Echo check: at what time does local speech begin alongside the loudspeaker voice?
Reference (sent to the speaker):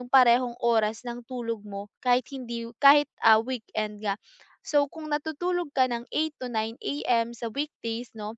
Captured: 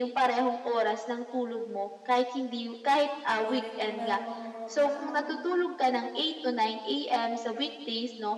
3 s

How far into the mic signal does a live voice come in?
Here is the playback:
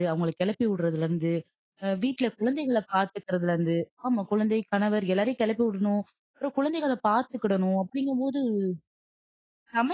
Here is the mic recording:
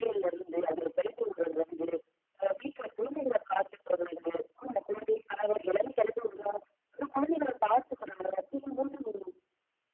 none

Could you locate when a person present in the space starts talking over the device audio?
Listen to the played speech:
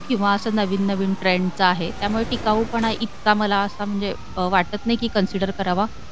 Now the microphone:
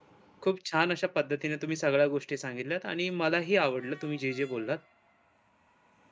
0 s

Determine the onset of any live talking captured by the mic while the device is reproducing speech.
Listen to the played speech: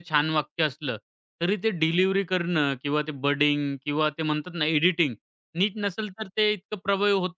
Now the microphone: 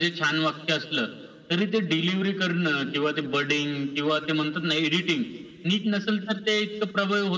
none

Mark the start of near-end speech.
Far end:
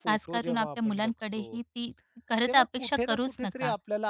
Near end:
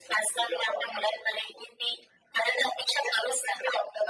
none

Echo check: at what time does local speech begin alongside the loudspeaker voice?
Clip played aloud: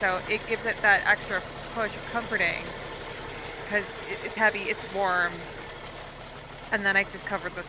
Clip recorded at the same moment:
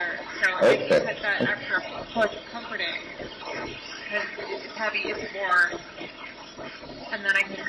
1 s

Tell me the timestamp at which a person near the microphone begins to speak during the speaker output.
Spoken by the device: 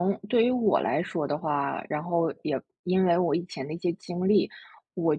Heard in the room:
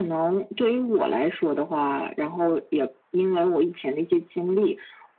none

